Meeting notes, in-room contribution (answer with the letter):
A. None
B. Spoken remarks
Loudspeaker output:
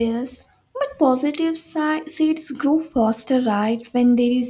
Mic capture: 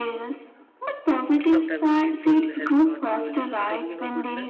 B